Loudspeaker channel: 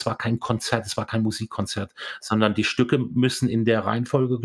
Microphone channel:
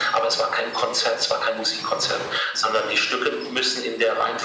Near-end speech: none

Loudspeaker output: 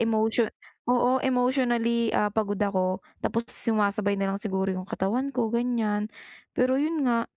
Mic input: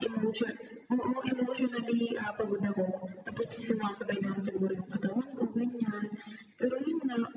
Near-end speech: none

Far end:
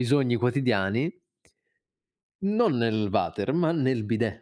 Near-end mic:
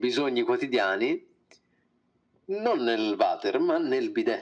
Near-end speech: none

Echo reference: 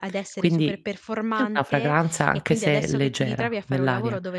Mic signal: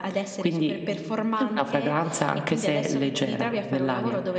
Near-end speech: none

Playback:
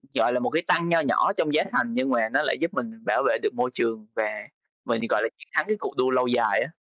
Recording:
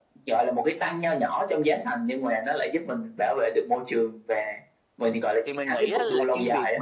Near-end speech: present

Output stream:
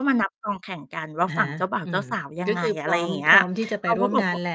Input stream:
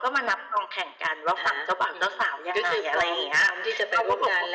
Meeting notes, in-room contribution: none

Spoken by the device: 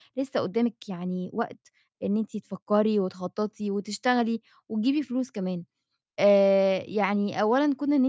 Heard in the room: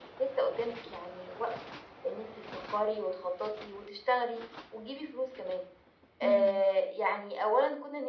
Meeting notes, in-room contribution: present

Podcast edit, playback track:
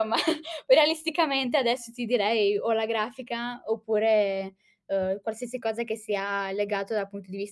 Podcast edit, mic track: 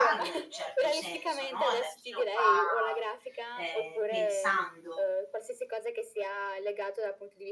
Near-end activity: present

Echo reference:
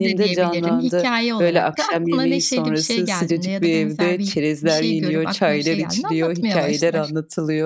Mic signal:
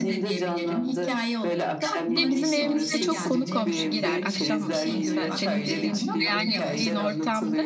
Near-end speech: present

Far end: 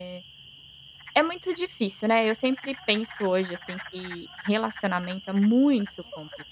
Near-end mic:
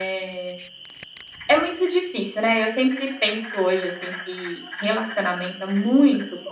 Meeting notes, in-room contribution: none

